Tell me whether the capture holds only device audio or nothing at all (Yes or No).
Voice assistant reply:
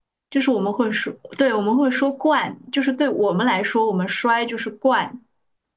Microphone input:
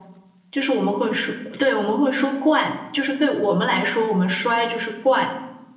Yes